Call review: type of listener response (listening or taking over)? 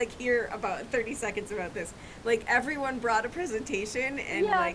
taking over